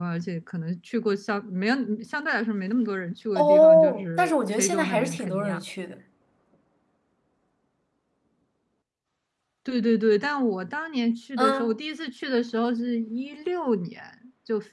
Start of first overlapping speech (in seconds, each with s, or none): 3.4 s